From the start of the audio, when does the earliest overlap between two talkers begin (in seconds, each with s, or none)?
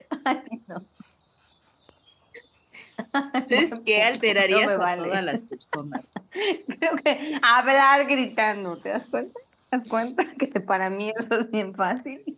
3.5 s